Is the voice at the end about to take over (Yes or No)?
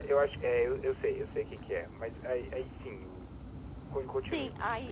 Yes